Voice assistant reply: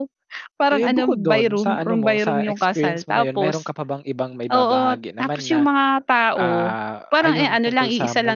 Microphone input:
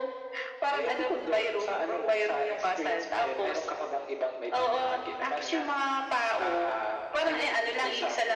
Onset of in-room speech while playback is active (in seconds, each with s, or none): none